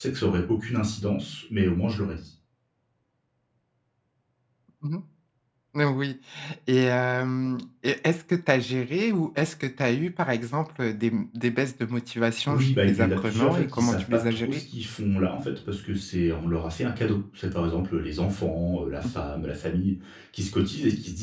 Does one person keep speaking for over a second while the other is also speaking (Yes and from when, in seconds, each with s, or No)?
Yes, from 12.5 s